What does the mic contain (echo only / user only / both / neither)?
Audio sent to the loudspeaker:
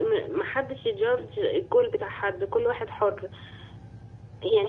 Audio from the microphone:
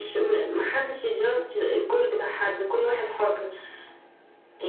echo only